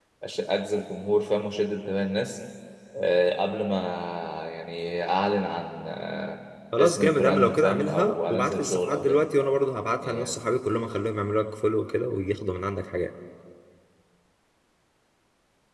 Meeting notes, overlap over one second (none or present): present